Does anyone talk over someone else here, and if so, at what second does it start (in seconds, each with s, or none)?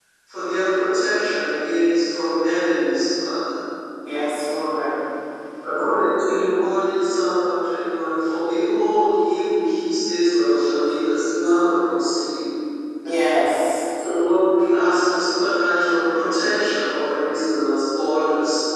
none